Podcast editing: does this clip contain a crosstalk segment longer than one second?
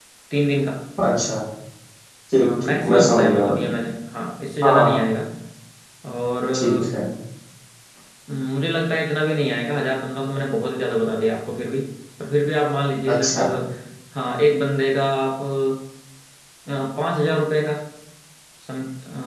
Yes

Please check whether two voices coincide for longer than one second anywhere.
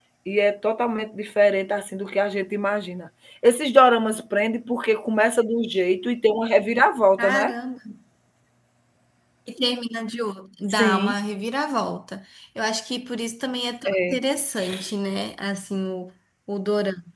No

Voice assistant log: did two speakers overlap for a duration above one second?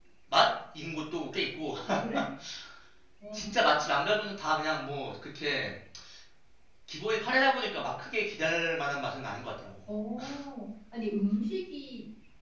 No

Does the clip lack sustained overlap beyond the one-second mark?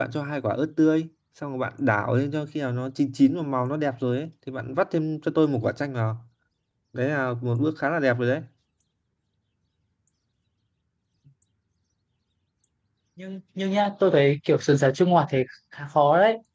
Yes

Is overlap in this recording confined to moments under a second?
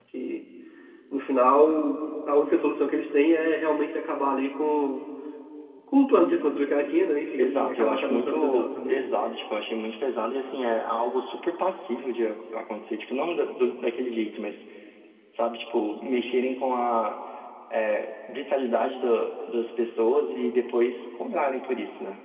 No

